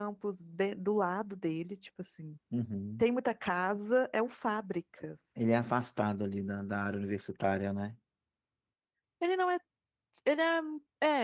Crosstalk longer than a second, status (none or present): none